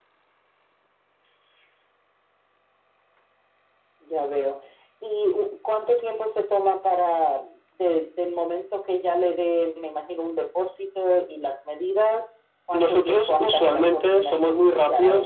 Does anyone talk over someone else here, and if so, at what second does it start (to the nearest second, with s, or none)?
13 s